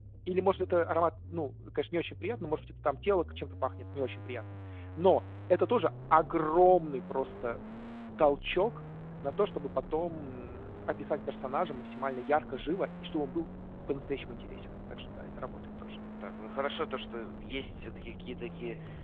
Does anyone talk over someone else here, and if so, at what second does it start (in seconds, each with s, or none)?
none